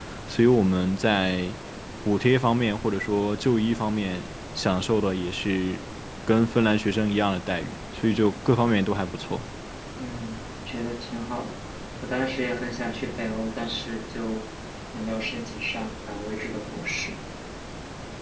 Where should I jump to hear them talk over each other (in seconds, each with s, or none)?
none